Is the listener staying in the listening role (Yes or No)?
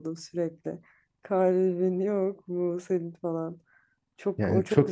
No